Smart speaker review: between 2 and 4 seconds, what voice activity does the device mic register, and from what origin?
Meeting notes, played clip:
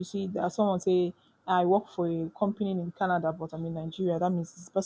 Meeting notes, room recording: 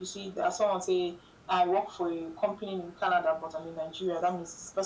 echo only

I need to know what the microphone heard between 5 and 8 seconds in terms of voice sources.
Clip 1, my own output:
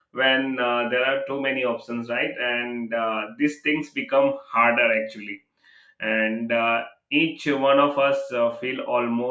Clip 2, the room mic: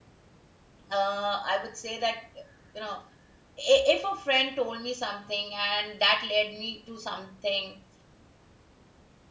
user only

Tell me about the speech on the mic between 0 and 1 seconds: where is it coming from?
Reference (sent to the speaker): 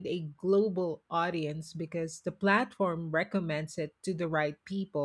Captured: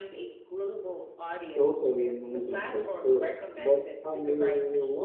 echo only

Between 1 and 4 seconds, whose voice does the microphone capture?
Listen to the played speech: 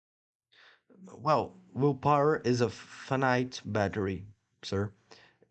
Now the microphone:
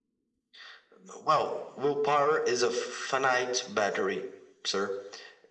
echo only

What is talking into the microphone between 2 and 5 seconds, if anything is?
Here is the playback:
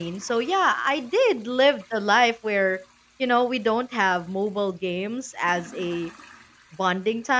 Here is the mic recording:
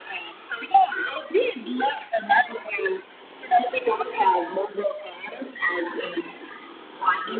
echo only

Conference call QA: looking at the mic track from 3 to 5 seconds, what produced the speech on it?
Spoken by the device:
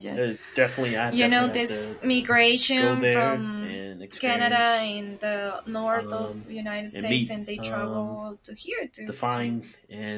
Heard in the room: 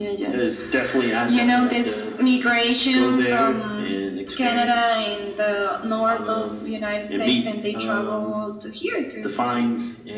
echo only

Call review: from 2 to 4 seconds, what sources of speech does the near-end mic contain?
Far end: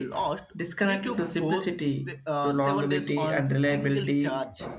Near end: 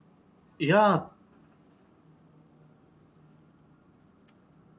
neither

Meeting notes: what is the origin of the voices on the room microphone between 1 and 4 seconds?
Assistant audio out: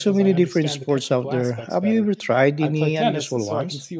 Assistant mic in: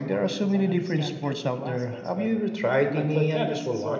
echo only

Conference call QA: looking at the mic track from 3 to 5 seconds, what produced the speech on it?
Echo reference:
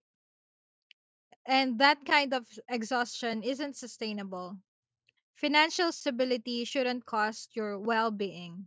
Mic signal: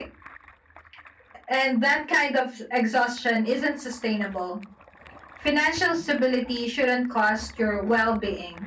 echo only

